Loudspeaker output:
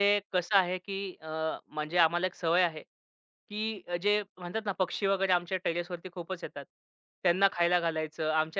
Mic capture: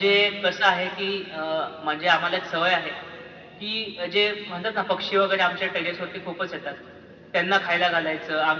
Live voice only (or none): none